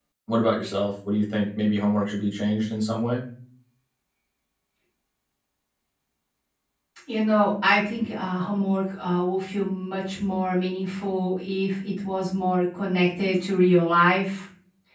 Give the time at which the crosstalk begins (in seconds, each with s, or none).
none